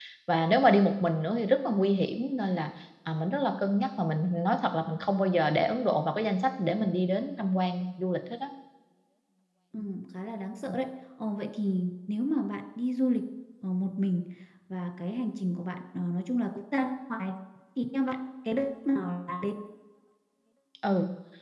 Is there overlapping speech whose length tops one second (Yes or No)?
No